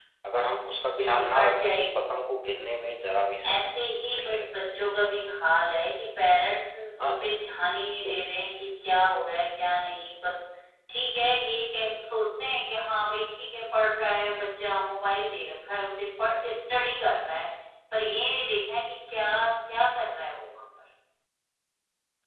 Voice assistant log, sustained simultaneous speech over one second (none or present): present